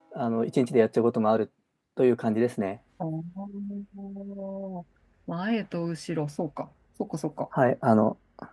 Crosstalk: none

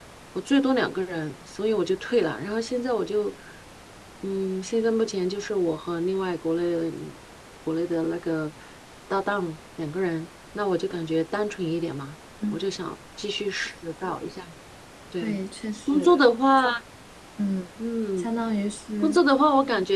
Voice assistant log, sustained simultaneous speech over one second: none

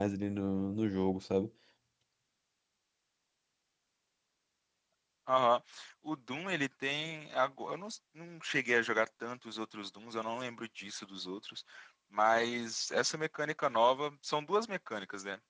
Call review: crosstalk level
none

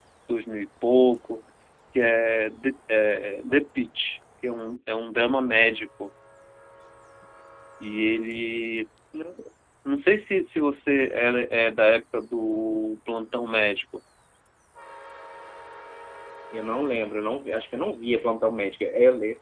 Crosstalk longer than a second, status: none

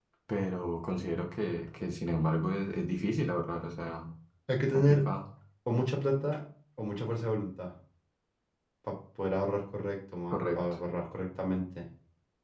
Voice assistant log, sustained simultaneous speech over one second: none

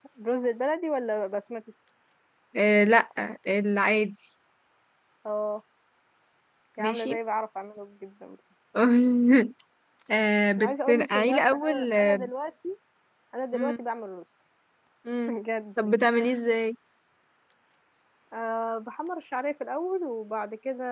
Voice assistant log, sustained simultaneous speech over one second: present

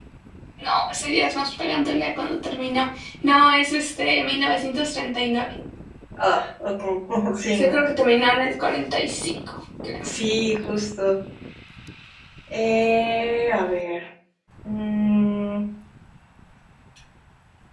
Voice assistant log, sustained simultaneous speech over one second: none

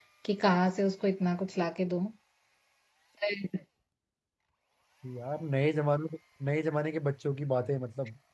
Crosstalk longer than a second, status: none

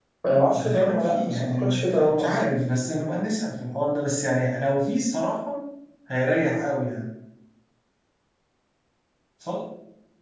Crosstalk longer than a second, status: present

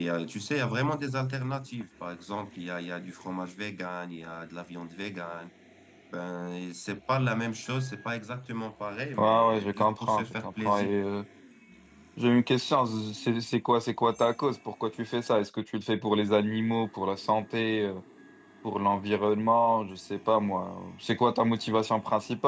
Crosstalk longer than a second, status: present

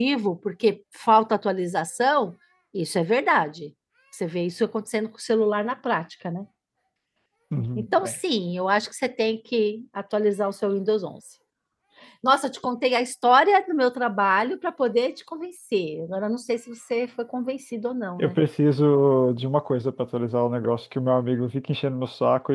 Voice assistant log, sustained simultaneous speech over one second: none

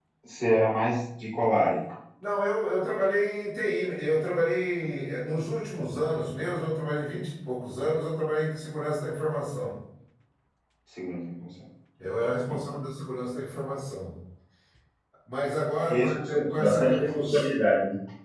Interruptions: present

